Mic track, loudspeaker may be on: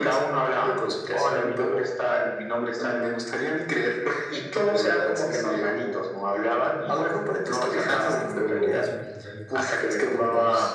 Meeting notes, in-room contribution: present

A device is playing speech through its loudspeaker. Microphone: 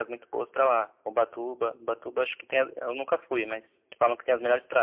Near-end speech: none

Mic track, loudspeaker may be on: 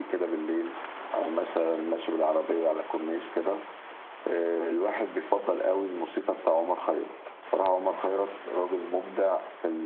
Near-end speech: none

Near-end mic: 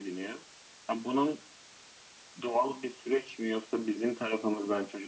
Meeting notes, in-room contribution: none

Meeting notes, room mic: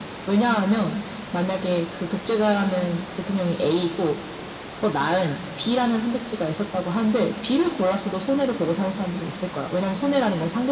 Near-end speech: none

